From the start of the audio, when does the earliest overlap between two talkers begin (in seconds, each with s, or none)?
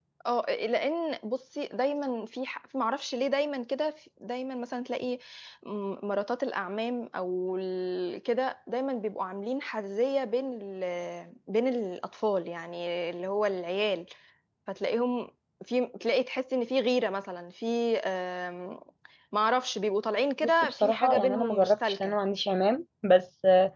20.4 s